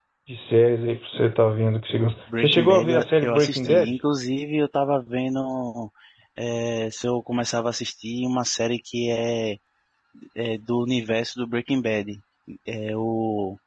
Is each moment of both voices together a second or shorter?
No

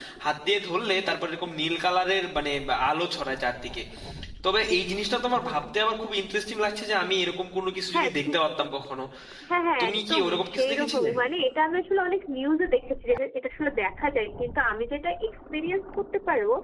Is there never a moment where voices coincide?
No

